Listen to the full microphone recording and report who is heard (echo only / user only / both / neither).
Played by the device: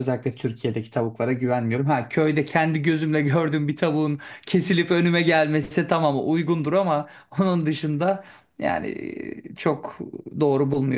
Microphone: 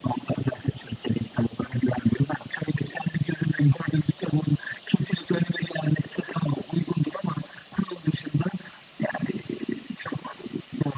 echo only